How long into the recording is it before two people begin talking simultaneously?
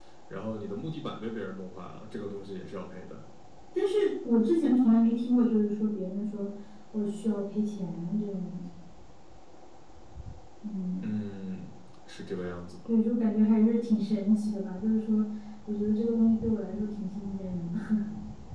none

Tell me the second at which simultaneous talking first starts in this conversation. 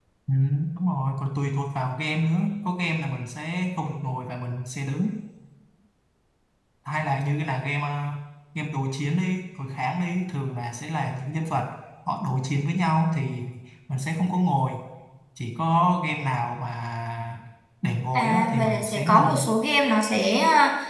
18.1 s

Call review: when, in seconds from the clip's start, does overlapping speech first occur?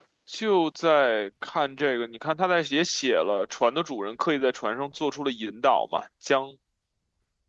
none

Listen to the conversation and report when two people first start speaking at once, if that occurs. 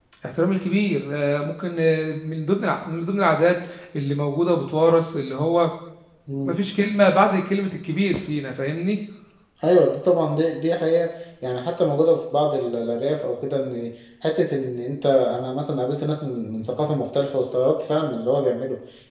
none

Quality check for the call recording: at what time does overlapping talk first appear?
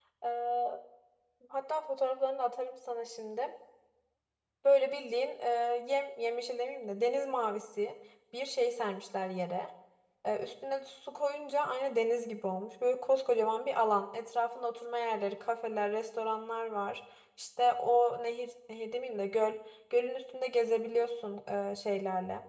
none

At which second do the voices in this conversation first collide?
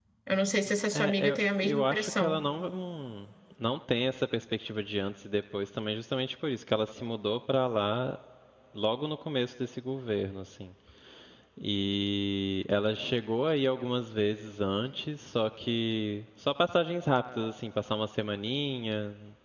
0.9 s

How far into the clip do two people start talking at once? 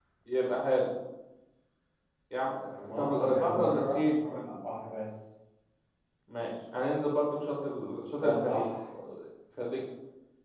2.9 s

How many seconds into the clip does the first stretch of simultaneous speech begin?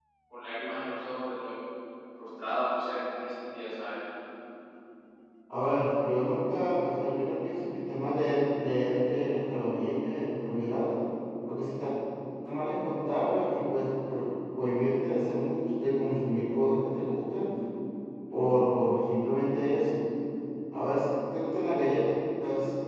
none

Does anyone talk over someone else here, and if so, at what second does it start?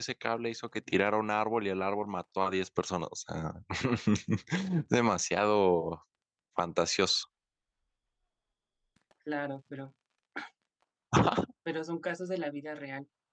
none

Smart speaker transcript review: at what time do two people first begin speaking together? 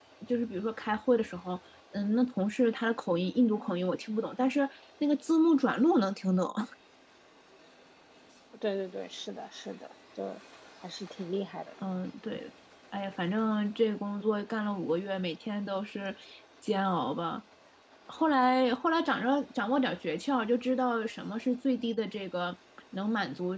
none

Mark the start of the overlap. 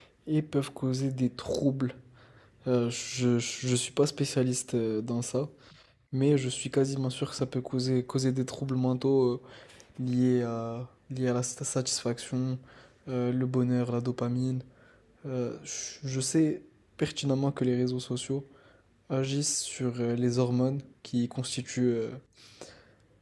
none

